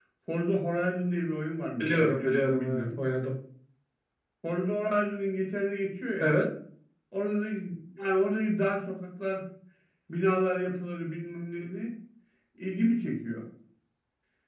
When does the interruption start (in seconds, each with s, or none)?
1.8 s